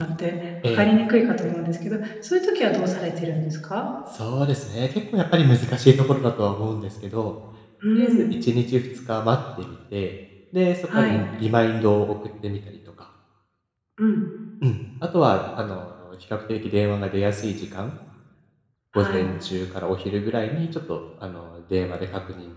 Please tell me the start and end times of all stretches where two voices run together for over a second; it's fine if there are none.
none

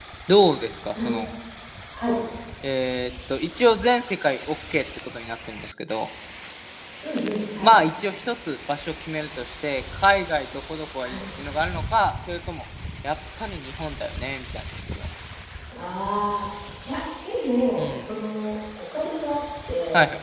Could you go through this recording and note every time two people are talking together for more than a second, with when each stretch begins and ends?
none

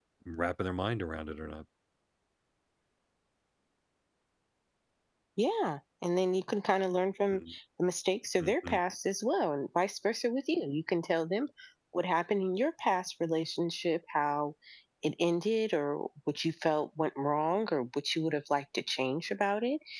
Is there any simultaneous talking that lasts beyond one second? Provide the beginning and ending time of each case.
none

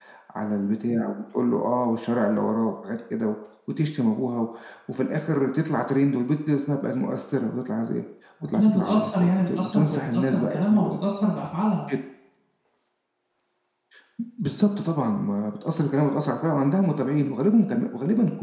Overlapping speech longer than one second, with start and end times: 8.4-11.0

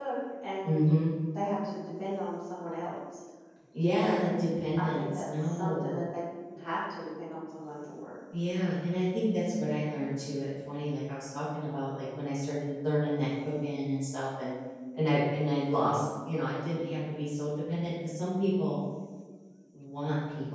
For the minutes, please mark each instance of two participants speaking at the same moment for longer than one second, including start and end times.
4.8-6.0

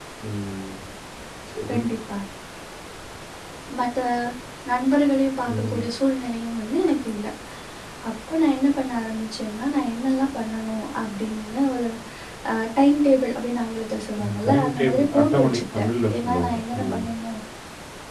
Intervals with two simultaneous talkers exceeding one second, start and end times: 14.2-16.8

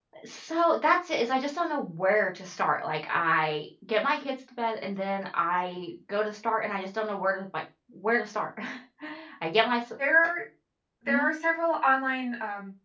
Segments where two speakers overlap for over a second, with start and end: none

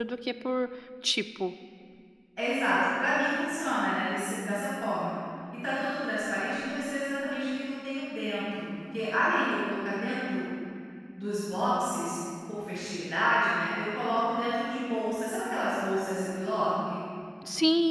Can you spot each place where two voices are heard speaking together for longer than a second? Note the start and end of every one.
none

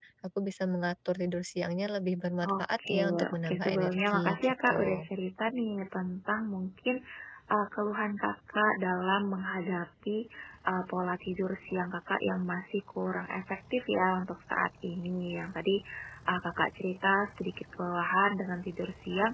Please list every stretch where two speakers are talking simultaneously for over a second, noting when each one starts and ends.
2.4-5.1

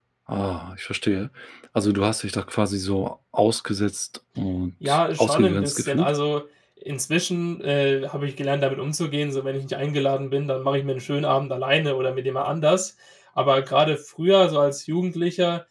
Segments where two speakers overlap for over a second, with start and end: 4.8-6.1

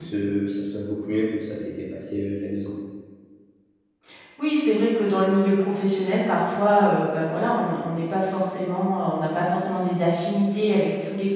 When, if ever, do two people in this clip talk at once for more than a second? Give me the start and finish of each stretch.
none

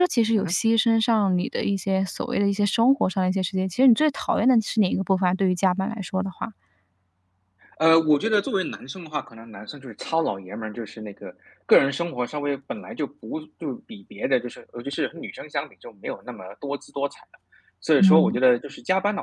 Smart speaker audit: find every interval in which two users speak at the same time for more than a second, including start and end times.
none

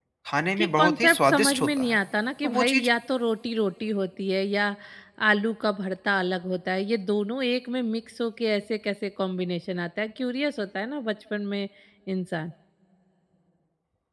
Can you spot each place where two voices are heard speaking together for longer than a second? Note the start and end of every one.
0.6-2.0

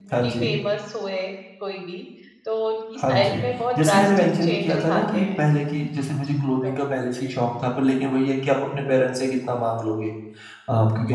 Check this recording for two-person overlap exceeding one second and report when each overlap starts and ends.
3.8-5.3

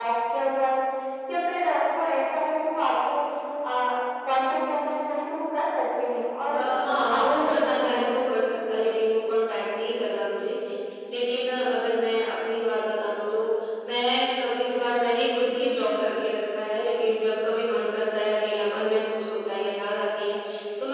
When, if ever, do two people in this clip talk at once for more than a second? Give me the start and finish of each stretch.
6.5-8.1

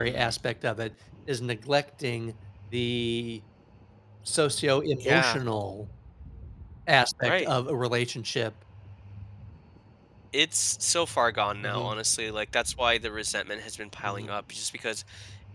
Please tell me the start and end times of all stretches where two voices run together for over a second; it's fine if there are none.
none

